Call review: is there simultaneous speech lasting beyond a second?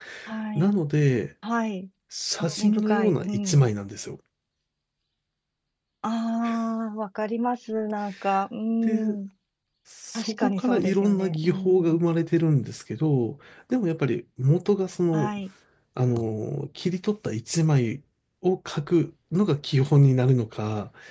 Yes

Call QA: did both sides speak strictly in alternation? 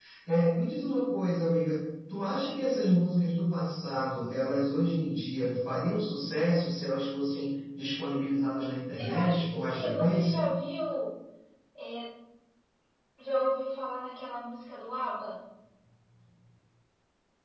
No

